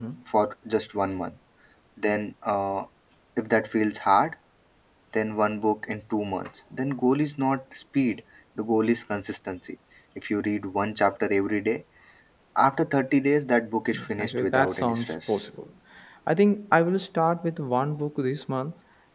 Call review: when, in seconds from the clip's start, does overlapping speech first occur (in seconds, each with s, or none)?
13.9 s